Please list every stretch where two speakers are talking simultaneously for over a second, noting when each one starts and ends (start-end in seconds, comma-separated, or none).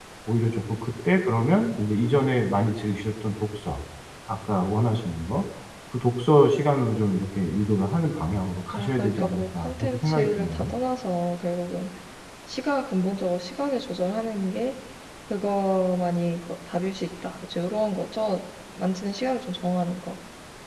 8.7-10.7